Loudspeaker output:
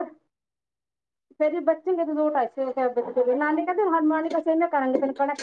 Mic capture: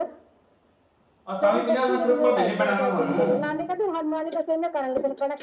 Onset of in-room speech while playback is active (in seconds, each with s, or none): 1.3 s